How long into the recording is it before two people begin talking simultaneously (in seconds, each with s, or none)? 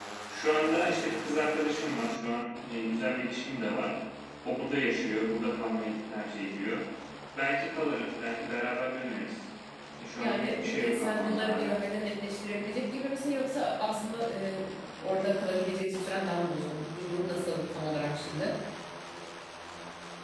10.2 s